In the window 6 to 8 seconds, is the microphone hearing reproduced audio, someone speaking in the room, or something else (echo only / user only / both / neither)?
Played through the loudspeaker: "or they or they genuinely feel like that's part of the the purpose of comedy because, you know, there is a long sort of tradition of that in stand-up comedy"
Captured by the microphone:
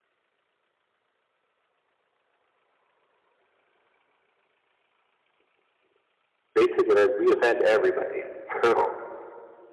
user only